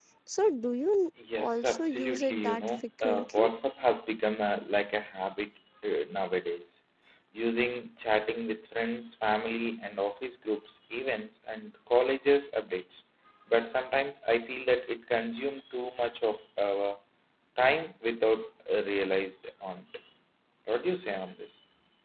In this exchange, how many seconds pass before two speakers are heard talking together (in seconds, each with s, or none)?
1.2 s